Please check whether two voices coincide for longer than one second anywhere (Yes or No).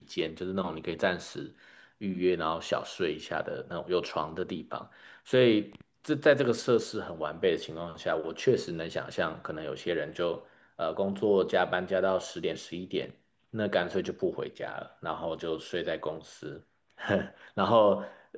No